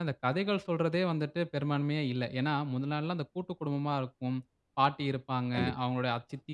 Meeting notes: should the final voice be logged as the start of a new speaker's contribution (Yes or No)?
No